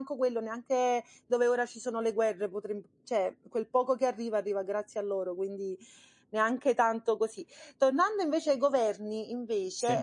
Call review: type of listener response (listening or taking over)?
listening